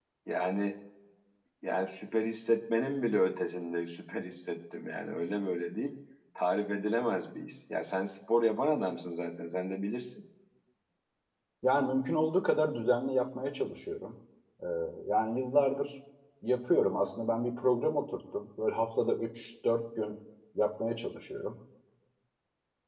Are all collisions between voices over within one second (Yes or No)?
Yes